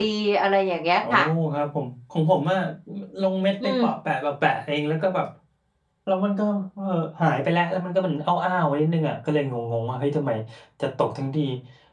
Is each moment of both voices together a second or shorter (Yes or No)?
Yes